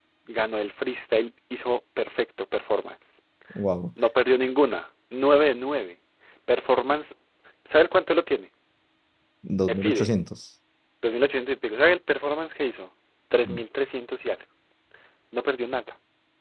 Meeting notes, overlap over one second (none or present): none